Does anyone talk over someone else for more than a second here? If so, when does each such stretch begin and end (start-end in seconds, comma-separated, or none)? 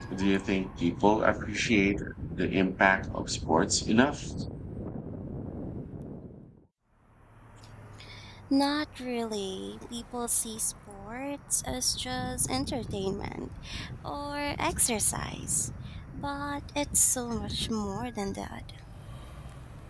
none